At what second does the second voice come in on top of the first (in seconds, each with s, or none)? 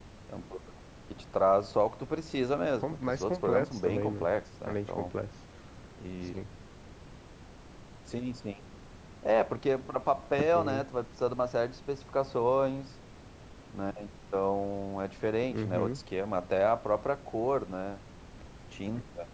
2.8 s